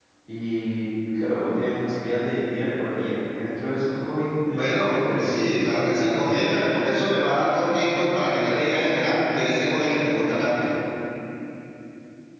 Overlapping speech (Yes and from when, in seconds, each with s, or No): Yes, from 4.6 s